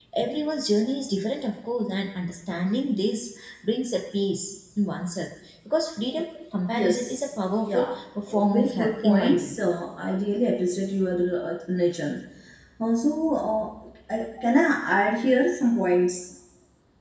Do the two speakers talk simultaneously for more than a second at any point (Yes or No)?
Yes